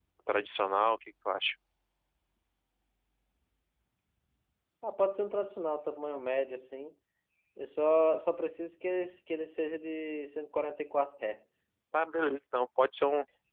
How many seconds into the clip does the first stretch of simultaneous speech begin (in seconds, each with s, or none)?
none